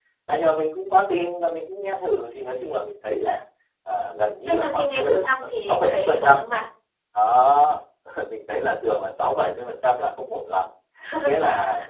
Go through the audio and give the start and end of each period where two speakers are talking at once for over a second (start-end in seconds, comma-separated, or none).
4.5-6.4